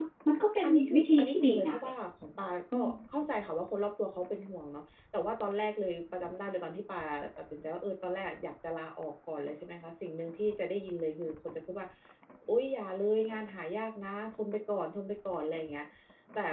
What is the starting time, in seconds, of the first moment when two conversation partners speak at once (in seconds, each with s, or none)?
0.6 s